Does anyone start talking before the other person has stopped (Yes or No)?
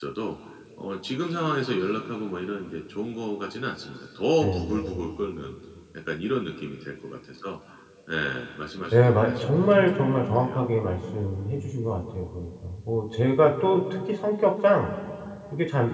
Yes